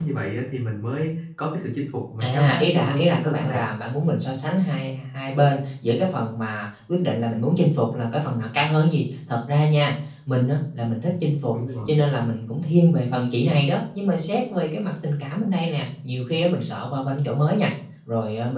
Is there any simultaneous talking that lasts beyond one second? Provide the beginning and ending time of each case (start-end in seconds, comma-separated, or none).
2.2-3.6